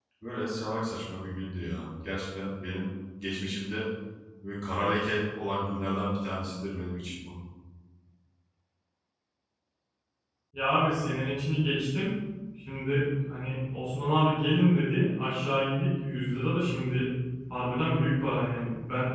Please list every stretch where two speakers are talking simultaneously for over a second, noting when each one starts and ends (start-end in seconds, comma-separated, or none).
none